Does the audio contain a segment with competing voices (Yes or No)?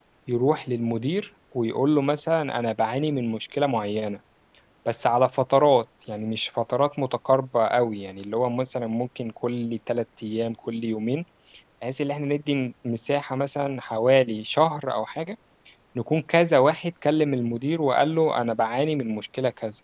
No